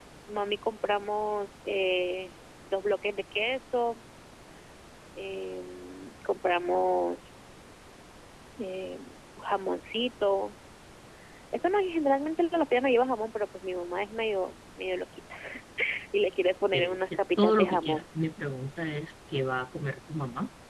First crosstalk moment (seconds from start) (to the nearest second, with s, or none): 17 s